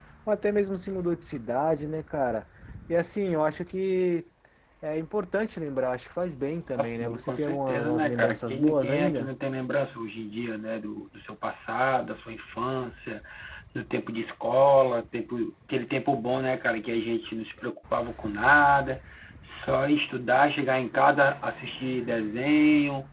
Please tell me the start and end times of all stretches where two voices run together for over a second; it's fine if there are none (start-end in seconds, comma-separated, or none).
6.8-9.3